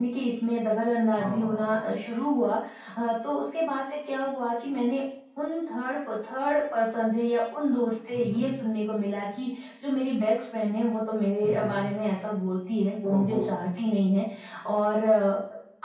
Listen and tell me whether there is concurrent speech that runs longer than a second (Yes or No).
No